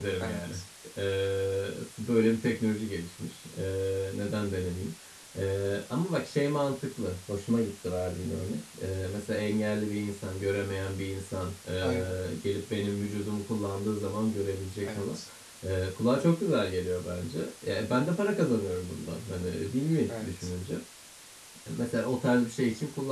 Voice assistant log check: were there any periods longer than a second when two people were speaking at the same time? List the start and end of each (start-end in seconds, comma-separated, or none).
none